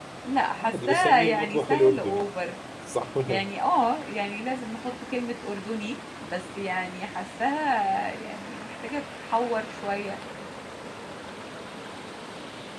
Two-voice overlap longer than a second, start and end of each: 0.6-2.3

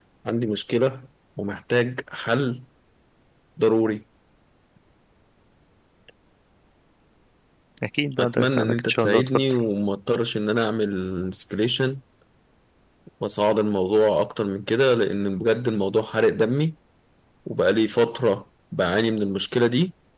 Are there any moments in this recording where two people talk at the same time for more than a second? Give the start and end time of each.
8.2-9.4

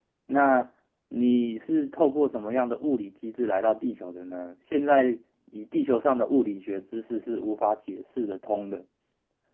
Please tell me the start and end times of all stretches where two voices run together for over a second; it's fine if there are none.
none

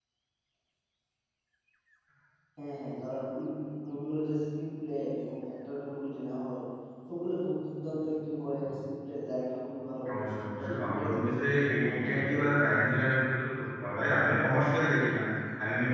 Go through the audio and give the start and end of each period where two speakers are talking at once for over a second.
10.6-12.8

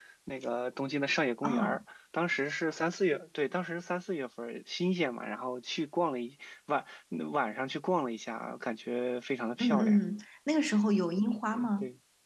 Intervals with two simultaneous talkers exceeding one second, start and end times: none

